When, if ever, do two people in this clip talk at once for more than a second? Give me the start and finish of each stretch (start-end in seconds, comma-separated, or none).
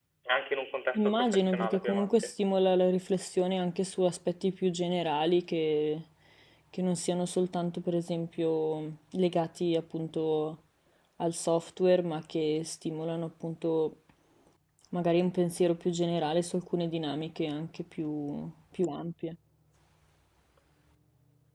0.9-2.3